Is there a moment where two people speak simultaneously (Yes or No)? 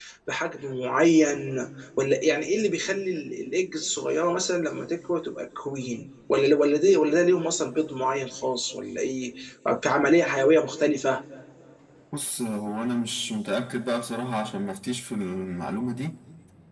No